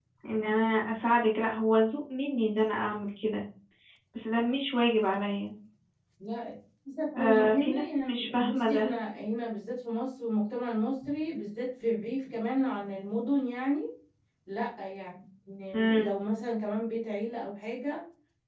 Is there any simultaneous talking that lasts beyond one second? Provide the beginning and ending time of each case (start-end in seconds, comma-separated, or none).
7.2-8.9